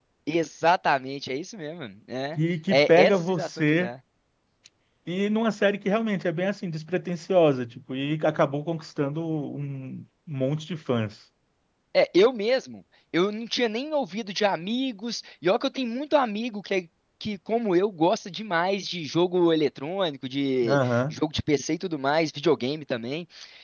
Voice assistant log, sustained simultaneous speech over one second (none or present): present